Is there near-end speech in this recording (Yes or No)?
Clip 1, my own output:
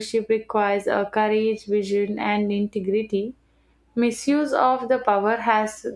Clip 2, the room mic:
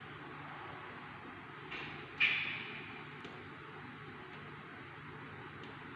No